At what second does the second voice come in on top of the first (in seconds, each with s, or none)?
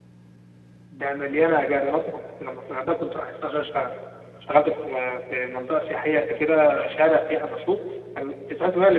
none